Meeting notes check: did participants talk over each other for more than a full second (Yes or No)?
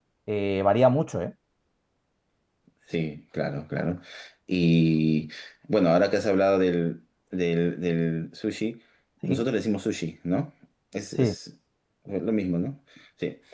No